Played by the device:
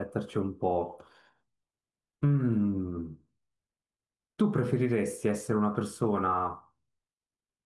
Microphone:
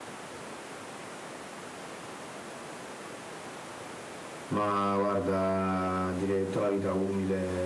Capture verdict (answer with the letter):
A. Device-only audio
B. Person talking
B